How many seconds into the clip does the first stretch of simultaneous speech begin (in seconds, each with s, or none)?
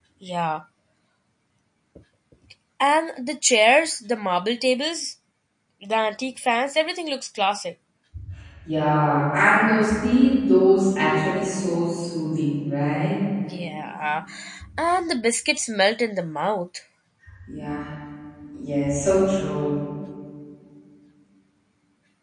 none